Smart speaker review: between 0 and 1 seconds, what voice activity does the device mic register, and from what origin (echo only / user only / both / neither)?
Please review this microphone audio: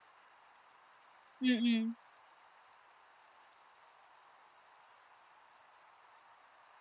neither